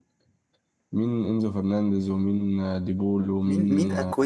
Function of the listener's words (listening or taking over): taking over